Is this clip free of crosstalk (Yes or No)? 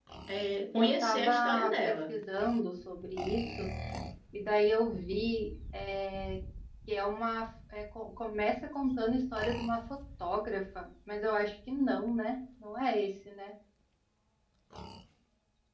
No